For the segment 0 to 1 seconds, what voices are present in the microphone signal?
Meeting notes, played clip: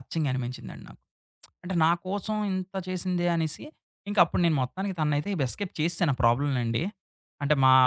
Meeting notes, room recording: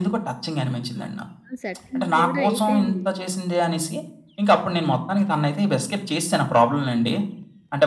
both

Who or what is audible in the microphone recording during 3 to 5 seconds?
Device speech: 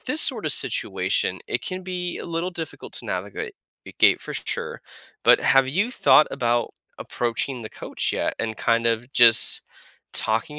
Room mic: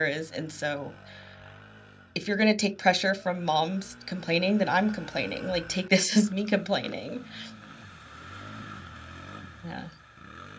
user only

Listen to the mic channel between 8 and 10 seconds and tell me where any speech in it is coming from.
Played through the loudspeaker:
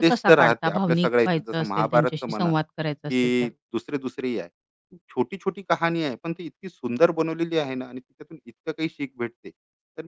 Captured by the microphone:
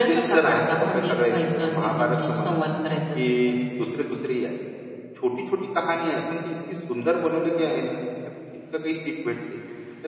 echo only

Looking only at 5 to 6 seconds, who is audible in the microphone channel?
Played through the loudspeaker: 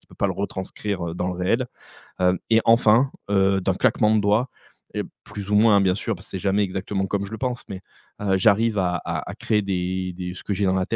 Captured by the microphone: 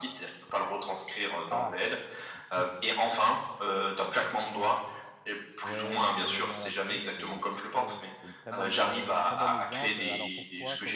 both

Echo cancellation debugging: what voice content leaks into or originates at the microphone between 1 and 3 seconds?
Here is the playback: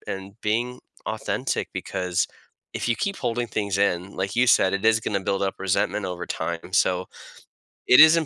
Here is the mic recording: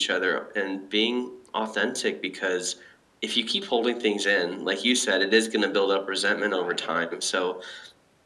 echo only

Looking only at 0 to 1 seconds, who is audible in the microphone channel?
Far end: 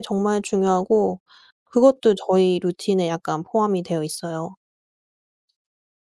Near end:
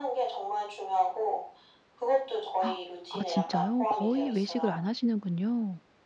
echo only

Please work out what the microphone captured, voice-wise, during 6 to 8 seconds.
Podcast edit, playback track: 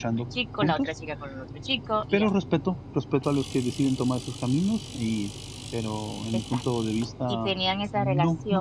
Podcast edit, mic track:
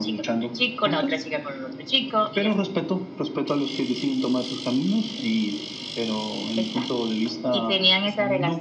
echo only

